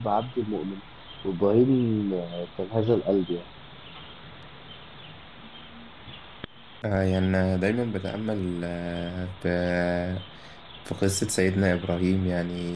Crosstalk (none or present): none